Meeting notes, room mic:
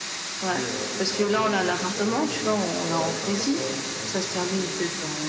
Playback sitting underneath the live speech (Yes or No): No